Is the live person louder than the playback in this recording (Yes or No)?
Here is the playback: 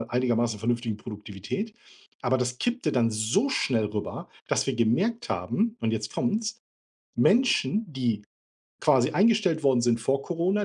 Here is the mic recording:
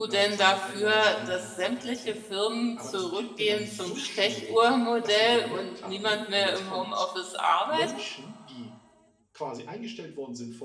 Yes